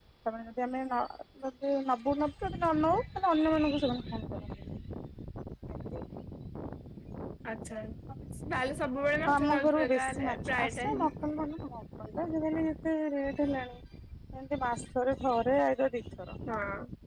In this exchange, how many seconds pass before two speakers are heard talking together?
9.3 s

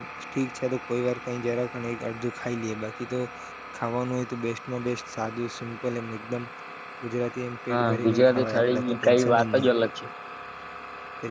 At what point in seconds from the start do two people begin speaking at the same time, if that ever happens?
7.7 s

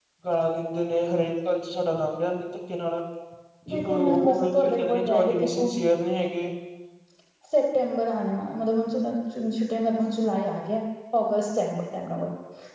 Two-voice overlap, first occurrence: 3.7 s

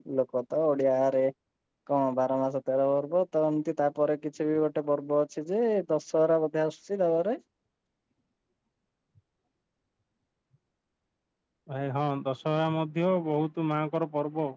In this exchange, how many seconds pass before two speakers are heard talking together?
none

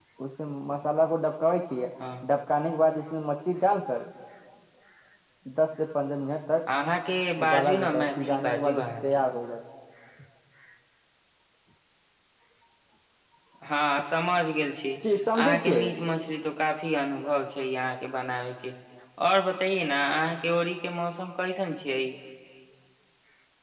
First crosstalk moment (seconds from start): 7.4 s

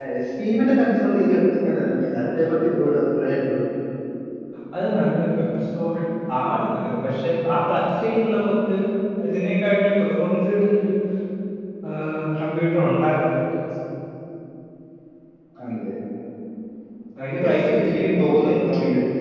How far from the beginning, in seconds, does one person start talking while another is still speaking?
17.3 s

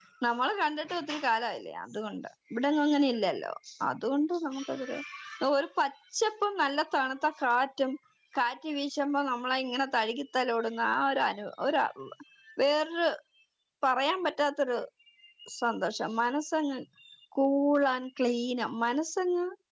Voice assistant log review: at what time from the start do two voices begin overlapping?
none

